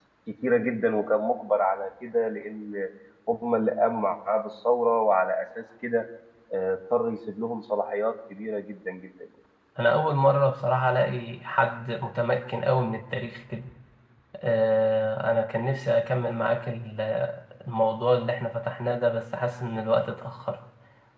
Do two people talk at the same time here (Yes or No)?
No